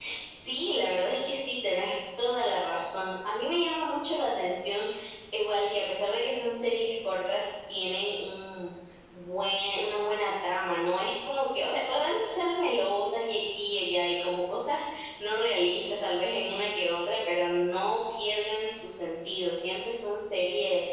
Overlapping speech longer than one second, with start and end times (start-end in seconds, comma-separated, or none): none